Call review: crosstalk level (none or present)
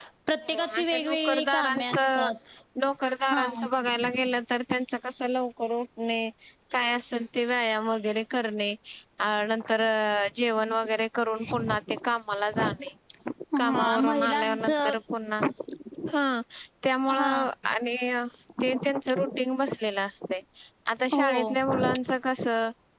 present